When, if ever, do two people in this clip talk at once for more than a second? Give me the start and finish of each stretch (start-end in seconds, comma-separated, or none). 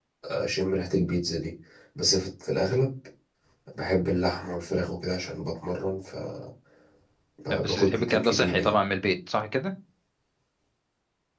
7.5-8.7